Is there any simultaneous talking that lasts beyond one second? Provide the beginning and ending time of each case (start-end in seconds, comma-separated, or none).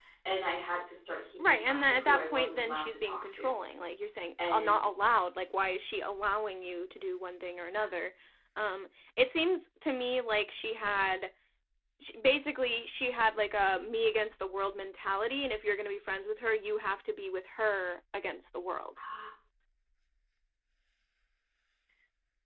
1.4-3.5